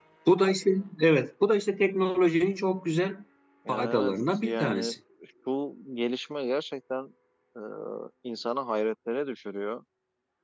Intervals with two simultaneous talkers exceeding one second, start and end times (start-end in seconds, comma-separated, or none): 3.7-4.9